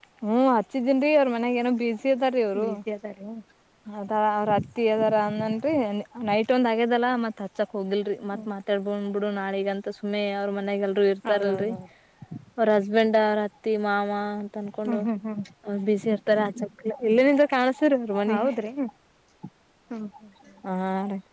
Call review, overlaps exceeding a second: none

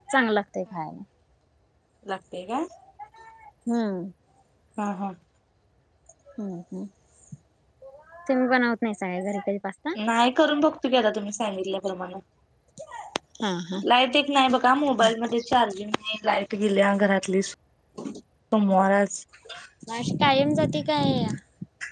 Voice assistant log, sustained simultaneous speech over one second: none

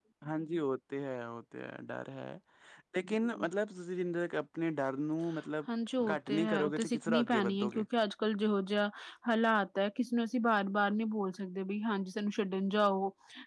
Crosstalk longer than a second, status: present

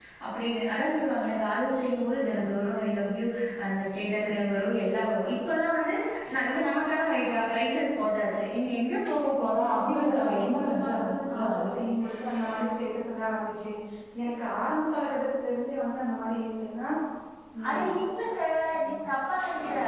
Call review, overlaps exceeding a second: present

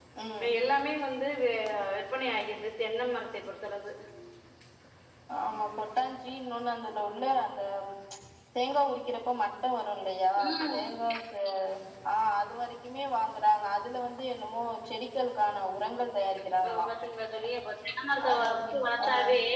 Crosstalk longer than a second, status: none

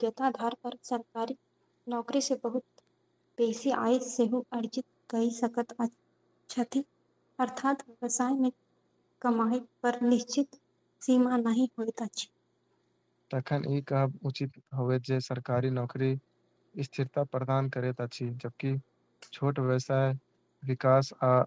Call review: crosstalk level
none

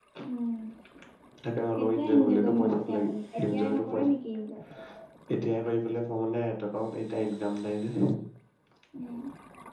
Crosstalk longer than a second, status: present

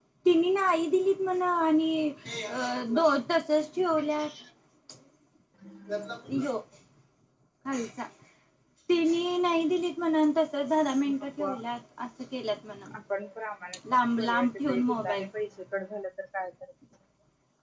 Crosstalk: present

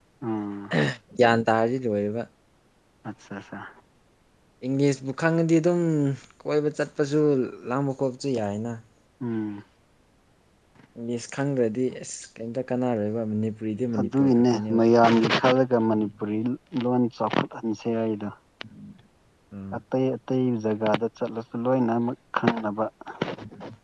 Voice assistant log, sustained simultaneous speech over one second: none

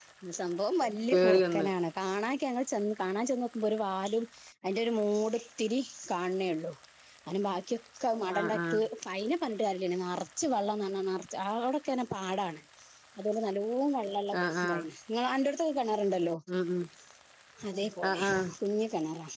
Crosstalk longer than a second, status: none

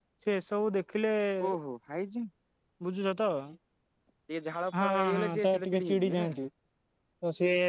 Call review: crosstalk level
present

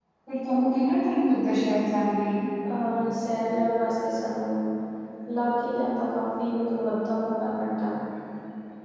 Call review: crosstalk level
none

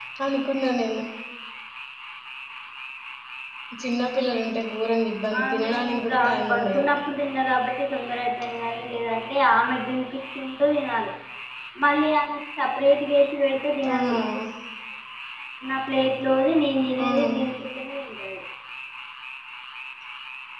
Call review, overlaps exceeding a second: present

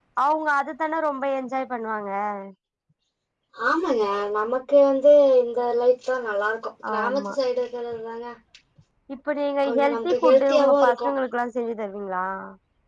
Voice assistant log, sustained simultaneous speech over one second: present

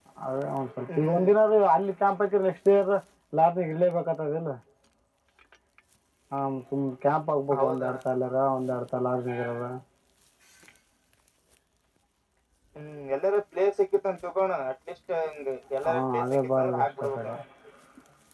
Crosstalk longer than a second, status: present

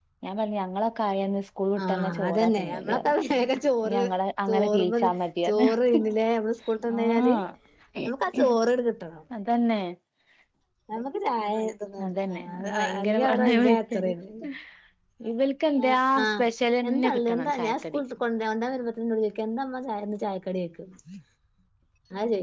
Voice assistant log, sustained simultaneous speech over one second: present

